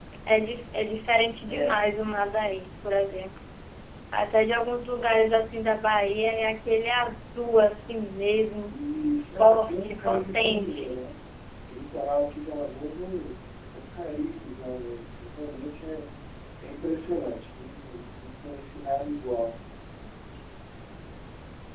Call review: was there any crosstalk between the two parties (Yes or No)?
Yes